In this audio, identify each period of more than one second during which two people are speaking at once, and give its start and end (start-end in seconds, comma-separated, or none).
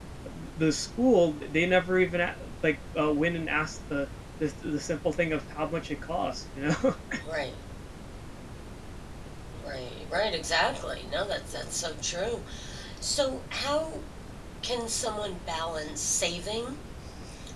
none